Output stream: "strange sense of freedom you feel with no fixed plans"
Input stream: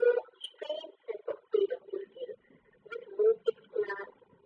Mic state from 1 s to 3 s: echo only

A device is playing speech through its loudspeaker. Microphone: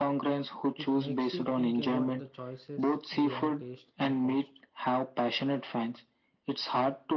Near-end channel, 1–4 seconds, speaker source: both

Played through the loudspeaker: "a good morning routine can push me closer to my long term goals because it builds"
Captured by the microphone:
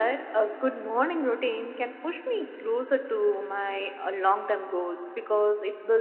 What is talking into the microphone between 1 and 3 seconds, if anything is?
echo only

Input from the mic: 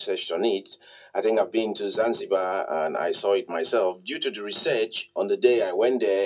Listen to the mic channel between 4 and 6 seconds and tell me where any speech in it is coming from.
echo only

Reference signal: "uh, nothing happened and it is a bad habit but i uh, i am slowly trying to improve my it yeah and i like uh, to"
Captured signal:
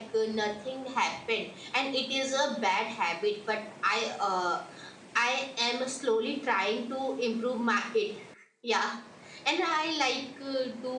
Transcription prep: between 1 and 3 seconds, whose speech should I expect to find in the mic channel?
echo only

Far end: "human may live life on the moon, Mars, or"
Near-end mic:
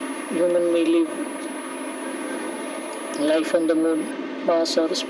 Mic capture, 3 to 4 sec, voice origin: echo only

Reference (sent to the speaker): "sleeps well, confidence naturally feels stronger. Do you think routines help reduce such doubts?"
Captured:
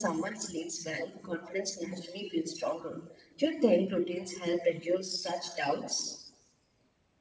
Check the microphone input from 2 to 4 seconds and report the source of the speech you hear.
echo only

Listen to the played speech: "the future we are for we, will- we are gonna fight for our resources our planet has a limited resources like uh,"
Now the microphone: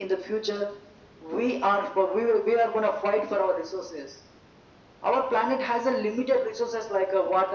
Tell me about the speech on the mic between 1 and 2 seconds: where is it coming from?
echo only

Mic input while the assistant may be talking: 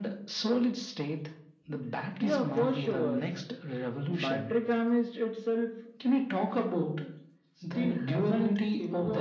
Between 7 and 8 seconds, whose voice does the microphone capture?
echo only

